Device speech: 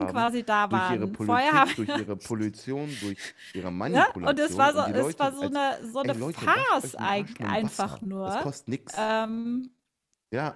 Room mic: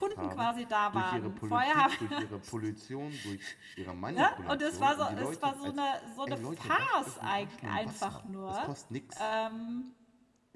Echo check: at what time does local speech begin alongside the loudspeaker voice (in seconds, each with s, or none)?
none